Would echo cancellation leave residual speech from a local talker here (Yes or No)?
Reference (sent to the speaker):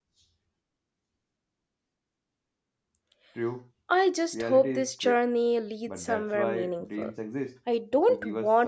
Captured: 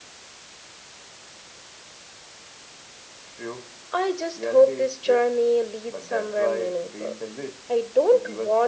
No